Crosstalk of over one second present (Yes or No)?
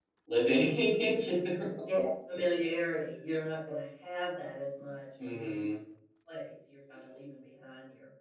No